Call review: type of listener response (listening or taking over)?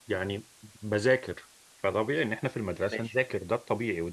listening